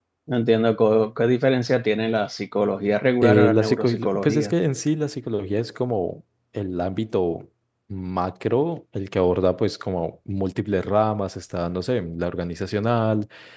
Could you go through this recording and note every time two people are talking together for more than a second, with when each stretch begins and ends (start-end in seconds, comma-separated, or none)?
3.2-4.5